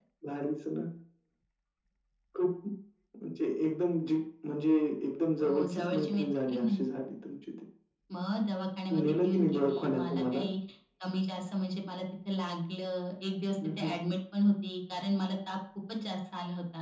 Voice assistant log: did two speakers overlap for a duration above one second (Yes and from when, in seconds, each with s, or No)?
Yes, from 5.4 s